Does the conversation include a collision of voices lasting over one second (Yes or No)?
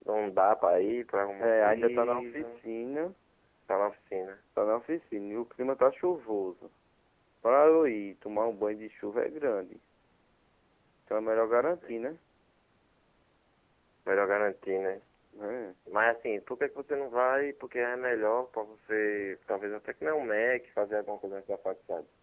Yes